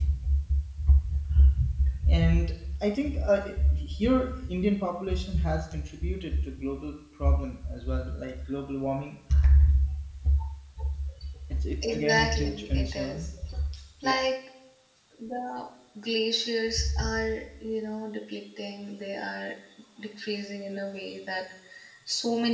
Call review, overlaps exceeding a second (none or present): present